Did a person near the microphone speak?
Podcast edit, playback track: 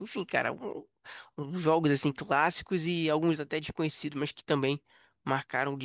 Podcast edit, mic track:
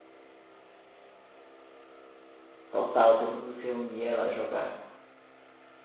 Yes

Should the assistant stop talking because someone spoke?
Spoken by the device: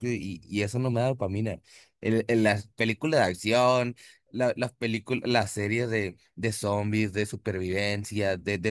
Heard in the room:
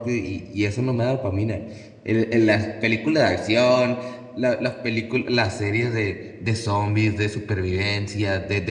No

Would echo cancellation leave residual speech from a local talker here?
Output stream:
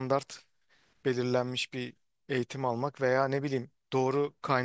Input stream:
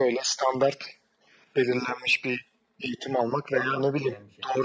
Yes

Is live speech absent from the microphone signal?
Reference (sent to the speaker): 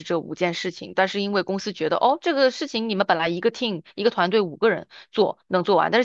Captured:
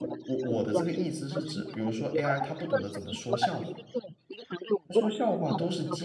No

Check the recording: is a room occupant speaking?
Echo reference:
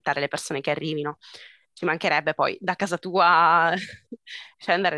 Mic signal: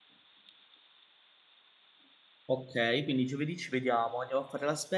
Yes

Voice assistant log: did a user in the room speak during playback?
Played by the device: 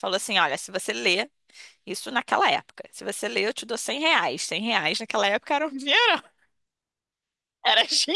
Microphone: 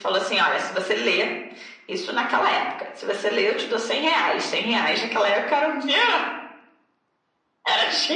No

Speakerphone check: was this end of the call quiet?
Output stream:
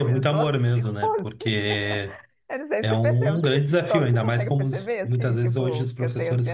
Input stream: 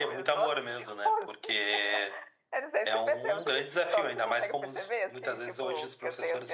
Yes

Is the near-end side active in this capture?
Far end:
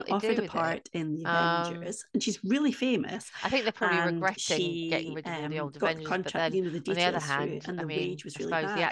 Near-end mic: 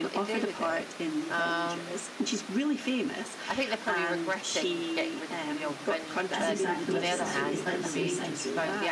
Yes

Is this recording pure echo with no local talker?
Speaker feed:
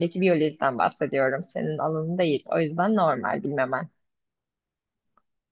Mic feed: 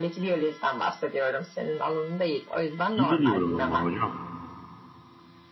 No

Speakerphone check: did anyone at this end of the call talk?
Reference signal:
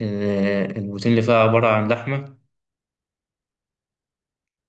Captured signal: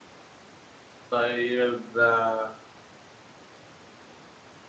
Yes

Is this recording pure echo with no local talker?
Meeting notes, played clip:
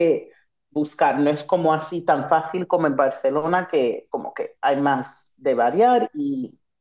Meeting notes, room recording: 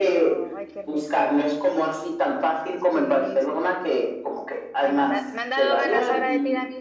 No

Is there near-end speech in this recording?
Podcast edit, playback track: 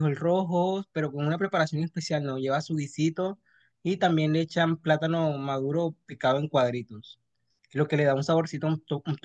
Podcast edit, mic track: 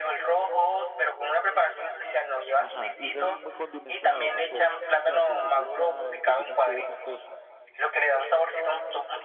Yes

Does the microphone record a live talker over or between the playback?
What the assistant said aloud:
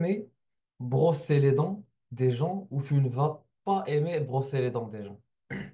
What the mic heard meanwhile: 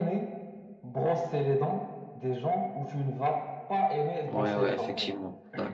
Yes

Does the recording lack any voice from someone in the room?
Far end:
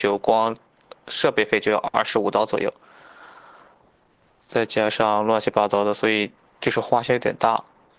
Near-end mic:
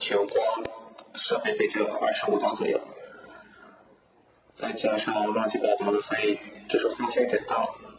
Yes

